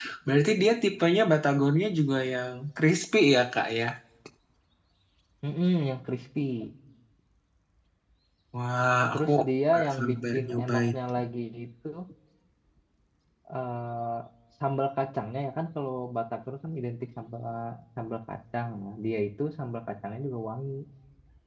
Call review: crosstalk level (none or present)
present